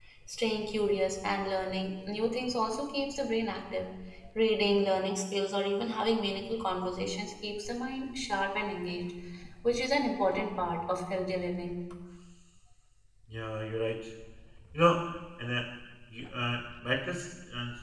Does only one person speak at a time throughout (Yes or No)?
Yes